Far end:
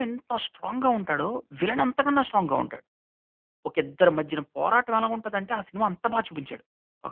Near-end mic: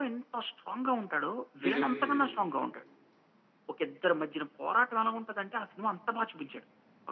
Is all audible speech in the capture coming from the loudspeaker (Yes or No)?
No